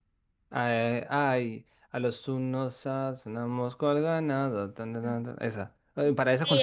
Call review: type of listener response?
taking over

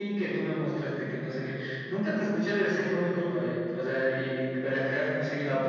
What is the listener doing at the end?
taking over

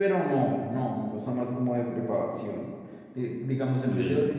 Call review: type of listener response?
listening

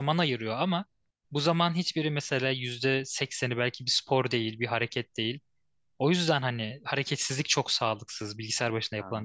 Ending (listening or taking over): taking over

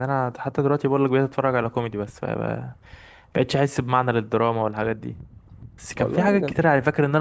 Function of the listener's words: listening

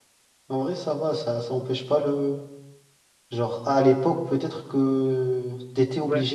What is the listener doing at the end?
taking over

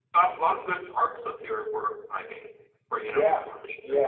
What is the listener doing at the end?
taking over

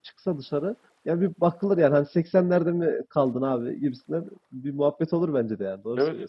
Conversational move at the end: taking over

